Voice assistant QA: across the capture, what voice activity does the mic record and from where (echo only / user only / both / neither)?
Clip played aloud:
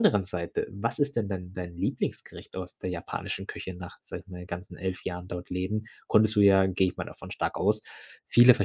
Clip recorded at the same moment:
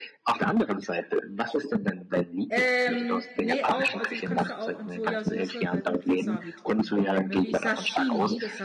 both